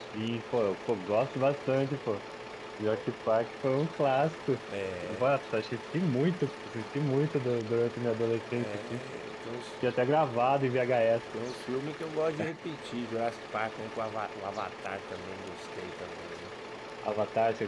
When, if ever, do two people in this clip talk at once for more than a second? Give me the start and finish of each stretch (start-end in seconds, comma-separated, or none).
none